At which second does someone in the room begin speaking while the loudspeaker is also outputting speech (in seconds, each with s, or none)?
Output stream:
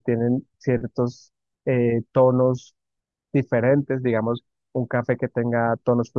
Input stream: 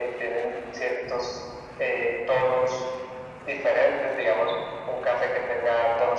none